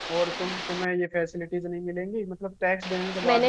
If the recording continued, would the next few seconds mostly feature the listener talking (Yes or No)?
Yes